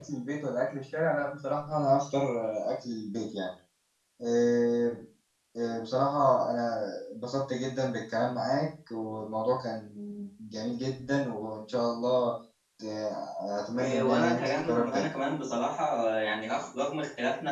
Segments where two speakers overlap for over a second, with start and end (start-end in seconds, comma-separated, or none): 13.8-15.1